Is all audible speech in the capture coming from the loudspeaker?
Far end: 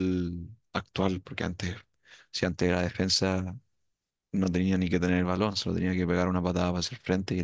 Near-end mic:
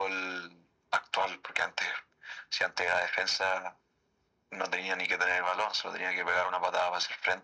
Yes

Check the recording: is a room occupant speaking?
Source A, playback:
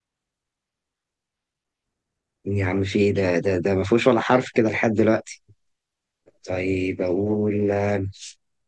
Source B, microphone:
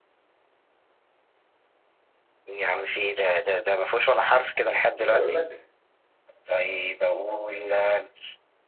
Yes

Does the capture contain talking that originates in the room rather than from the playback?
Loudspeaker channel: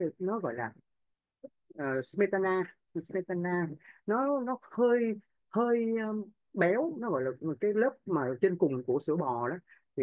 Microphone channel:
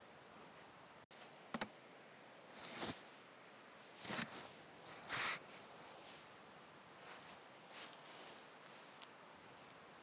No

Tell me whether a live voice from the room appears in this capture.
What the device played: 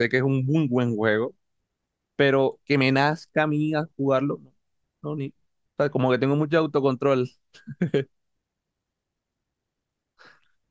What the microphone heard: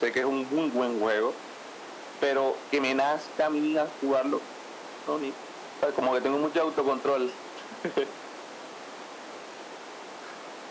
No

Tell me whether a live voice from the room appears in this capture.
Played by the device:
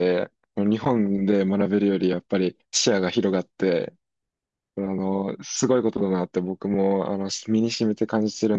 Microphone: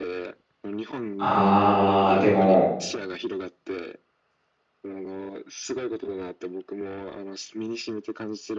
Yes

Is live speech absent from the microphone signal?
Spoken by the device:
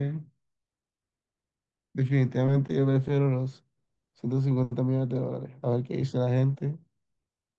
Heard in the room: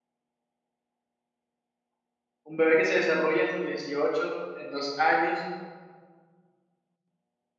No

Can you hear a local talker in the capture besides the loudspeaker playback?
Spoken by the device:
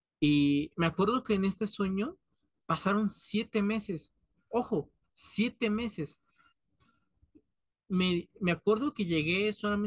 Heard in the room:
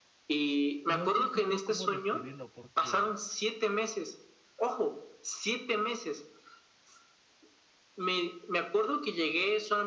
Yes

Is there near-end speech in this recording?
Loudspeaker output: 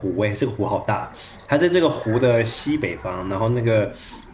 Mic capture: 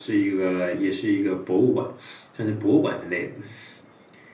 Yes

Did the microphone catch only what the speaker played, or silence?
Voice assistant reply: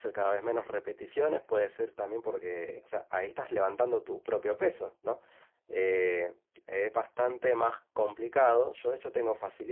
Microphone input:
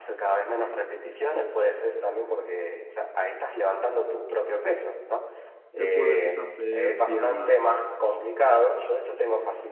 No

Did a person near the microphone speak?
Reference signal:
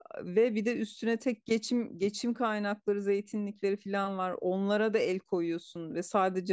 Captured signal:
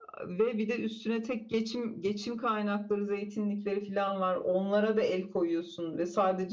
No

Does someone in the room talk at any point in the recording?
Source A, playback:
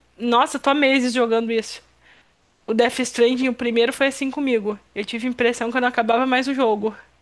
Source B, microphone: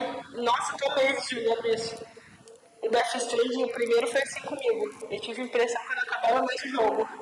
No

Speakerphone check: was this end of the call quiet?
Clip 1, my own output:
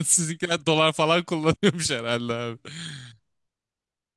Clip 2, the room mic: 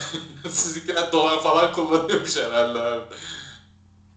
Yes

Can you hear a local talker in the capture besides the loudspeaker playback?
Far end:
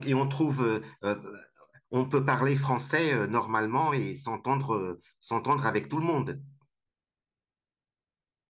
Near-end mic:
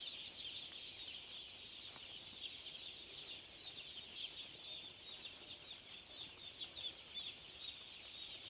No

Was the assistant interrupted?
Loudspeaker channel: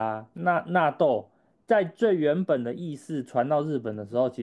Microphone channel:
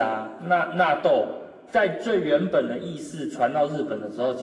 No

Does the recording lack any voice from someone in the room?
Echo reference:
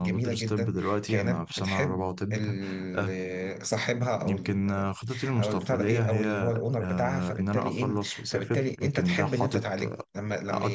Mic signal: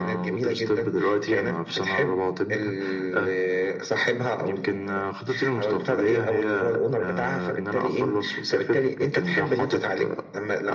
Yes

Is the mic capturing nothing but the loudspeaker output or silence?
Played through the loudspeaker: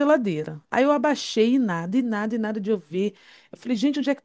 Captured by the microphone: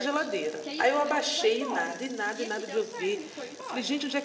No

